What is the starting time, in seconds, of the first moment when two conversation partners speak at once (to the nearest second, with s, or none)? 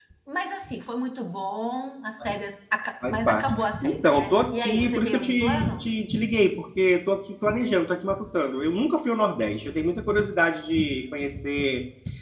3 s